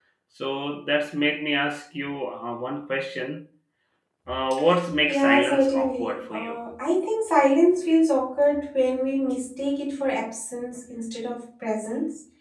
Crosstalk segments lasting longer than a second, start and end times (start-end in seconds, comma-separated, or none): 5.1-6.6